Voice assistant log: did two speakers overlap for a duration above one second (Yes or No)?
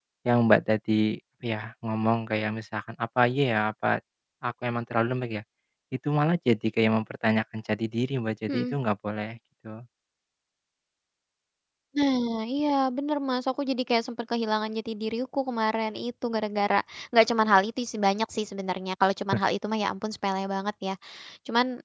No